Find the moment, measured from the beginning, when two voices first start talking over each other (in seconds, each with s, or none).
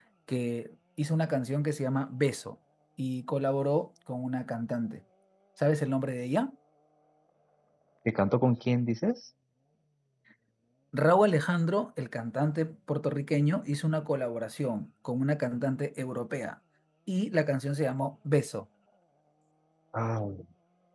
none